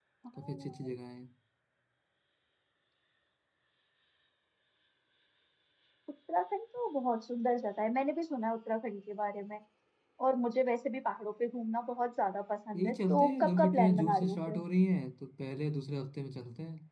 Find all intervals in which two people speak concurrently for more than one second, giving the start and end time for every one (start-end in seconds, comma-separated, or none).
12.8-14.6